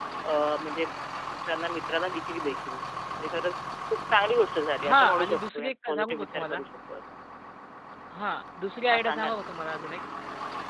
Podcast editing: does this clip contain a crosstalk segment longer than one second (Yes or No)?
Yes